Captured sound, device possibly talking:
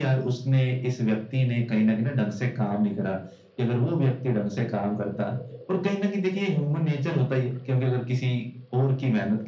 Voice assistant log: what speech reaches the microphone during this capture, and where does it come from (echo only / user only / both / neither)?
echo only